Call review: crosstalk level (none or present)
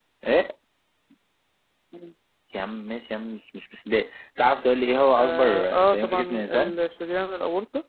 present